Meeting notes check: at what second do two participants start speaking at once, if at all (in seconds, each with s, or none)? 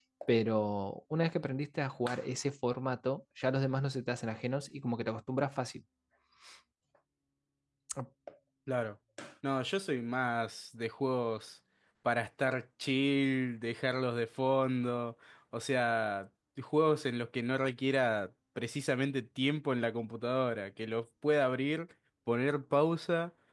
none